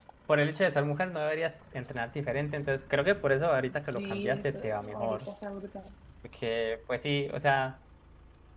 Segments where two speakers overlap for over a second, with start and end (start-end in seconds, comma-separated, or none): 3.9-5.2